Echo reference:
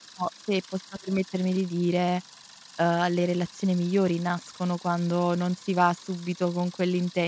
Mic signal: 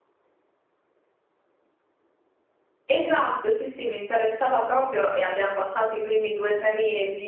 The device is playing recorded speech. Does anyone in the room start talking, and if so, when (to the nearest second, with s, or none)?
3 s